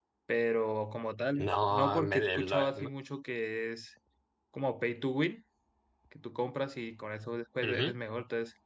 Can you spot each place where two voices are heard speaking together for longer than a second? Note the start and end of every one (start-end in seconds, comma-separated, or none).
1.4-2.9